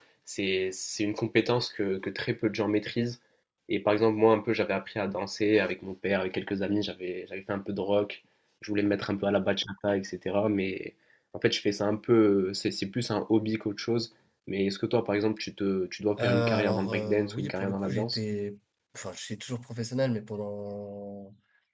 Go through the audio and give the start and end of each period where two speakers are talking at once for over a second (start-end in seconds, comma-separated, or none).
16.2-18.2